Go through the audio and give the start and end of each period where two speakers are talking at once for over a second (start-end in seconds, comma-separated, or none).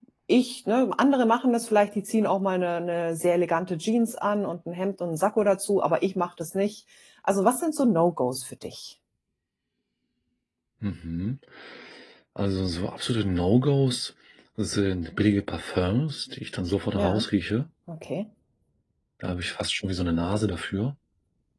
none